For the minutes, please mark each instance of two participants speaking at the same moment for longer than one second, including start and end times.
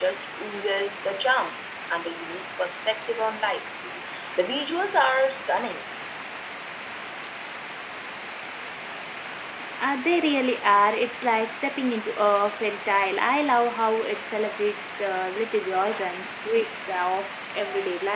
none

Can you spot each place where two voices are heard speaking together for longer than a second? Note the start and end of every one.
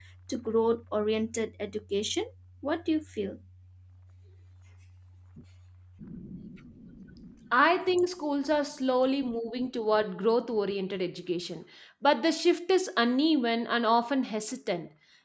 none

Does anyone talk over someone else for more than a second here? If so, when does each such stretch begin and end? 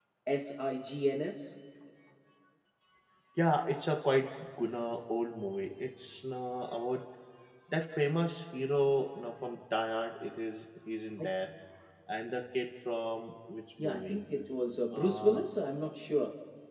none

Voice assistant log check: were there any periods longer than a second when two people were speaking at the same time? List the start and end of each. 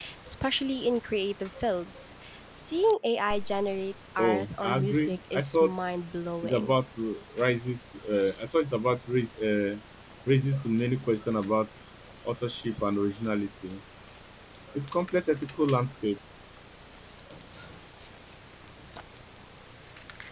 4.2-5.7

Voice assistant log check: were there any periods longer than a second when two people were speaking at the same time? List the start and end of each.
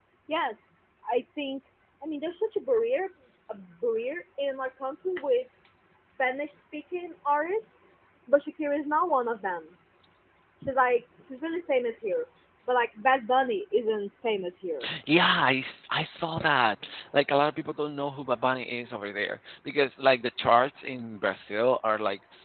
none

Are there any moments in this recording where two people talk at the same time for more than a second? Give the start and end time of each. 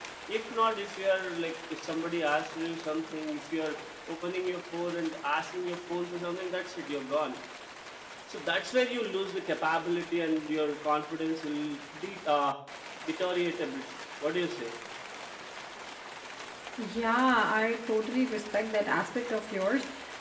none

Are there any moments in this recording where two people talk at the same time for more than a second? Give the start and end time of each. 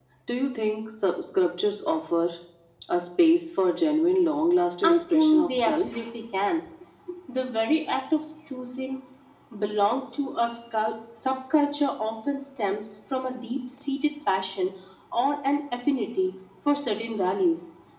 4.8-6.0

